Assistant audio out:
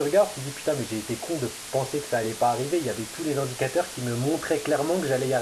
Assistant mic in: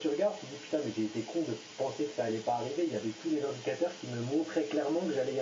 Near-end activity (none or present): none